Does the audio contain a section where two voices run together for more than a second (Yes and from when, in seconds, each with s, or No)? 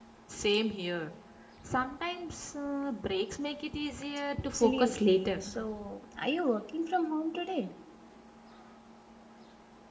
Yes, from 4.3 s